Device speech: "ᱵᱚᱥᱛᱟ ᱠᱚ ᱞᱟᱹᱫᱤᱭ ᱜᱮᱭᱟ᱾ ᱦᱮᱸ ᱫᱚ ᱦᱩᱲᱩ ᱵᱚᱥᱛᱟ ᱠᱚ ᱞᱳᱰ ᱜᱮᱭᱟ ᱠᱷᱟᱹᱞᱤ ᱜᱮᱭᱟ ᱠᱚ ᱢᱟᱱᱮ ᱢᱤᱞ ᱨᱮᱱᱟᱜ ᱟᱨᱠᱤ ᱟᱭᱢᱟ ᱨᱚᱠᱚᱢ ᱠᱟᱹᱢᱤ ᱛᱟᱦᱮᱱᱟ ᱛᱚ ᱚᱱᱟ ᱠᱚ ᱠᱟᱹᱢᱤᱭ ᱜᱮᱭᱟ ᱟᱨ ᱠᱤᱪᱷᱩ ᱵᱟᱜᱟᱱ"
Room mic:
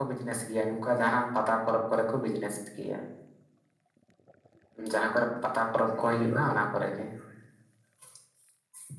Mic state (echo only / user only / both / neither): user only